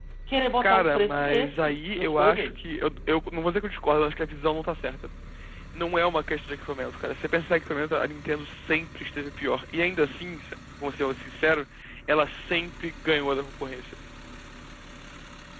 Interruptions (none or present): present